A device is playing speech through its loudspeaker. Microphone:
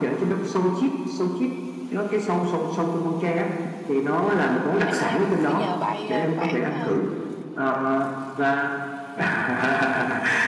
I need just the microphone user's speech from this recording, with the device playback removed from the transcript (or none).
em xem coi có cái giờ bay ờ, khoảng ờ,